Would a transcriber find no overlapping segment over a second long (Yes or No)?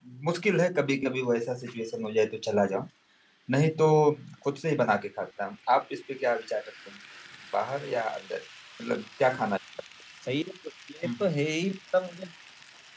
Yes